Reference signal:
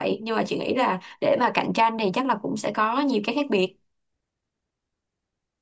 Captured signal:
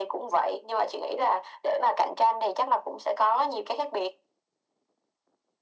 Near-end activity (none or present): none